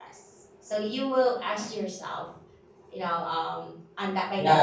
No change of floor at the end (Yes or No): No